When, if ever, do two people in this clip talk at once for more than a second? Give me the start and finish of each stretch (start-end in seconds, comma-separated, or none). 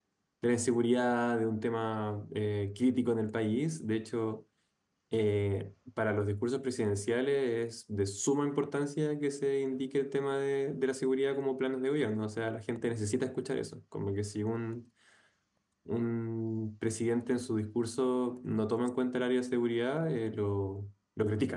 none